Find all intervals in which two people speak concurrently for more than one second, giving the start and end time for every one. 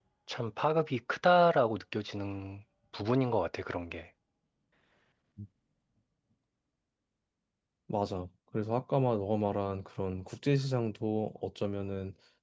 none

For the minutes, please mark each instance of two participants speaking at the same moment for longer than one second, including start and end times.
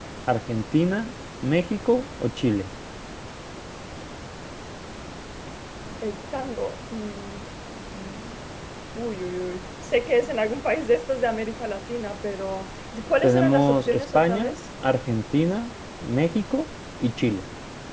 13.2-14.6

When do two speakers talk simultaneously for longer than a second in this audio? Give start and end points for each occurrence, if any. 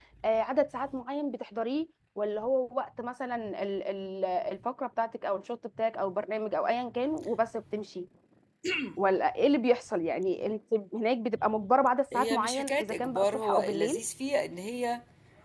12.1-14.0

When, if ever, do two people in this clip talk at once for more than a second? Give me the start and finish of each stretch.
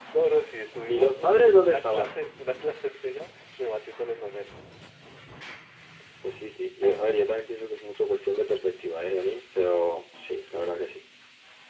0.9-2.1

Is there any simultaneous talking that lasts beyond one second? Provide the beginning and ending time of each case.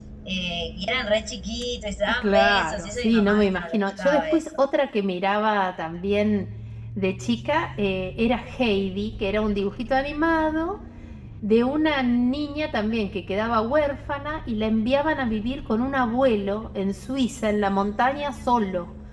2.2-4.5

